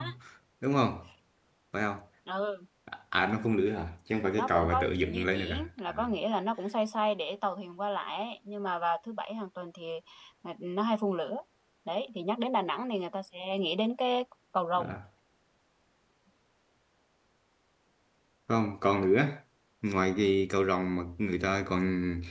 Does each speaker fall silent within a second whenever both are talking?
No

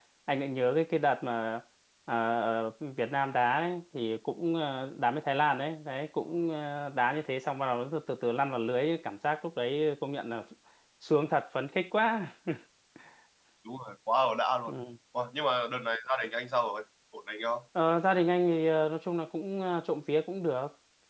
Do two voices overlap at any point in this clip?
No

